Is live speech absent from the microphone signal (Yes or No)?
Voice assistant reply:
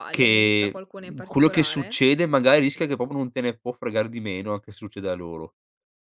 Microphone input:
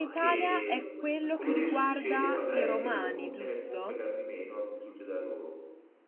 No